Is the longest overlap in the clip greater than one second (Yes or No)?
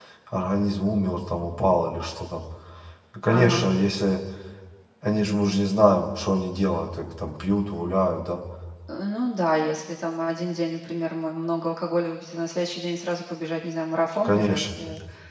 No